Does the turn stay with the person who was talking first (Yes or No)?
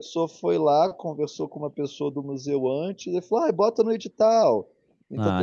Yes